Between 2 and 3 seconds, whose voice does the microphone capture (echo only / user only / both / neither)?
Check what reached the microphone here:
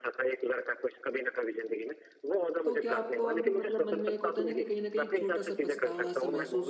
both